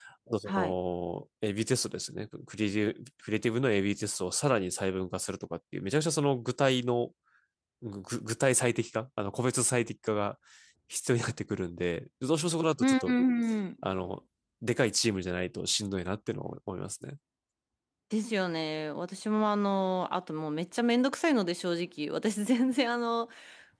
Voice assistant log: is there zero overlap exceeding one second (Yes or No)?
Yes